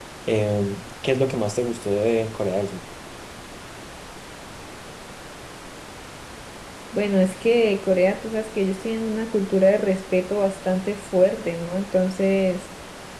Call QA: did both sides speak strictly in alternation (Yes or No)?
Yes